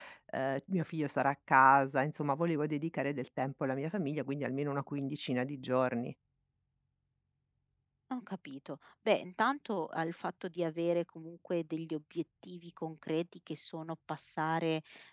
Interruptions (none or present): none